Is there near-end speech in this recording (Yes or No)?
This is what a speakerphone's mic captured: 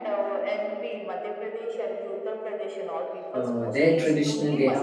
Yes